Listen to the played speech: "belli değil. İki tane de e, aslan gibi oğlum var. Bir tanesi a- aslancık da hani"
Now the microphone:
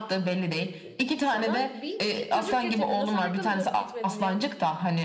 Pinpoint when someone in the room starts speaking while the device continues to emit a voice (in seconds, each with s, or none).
0.8 s